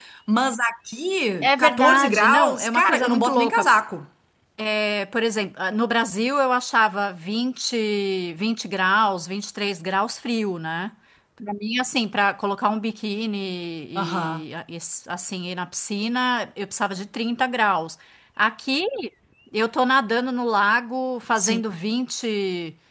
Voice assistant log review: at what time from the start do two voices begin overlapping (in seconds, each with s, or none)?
1.4 s